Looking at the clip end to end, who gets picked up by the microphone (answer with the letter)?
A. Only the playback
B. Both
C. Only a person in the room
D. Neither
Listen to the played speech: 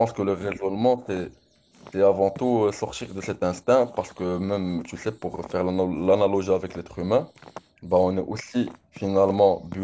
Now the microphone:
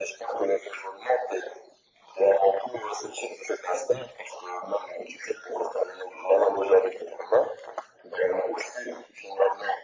A